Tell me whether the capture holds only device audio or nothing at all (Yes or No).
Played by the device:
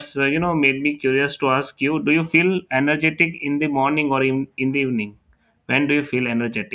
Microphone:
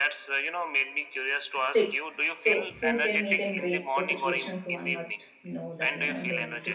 No